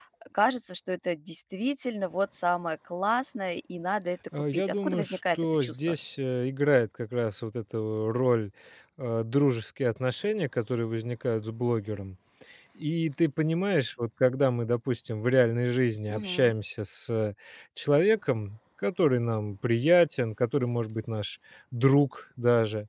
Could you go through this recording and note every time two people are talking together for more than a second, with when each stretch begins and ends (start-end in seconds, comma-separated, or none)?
4.5-5.8